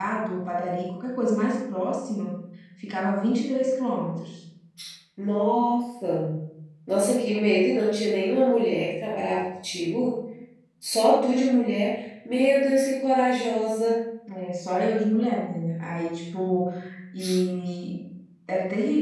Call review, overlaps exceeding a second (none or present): none